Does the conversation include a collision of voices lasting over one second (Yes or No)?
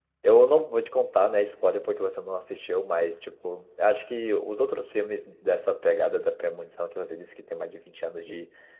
No